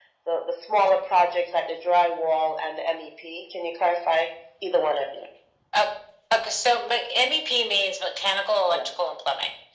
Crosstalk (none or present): none